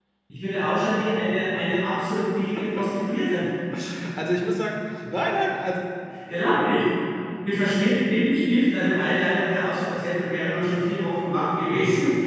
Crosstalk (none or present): none